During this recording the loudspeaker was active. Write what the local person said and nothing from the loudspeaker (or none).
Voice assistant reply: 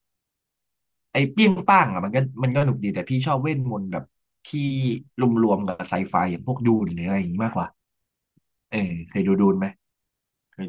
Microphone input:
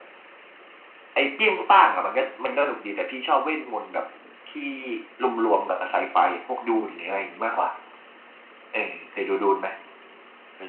none